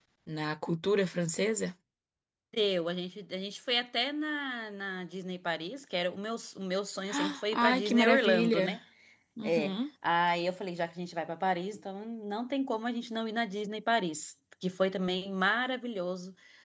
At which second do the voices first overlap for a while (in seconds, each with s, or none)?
7.1 s